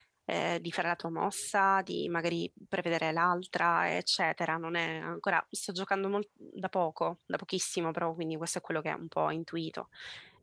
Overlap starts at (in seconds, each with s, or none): none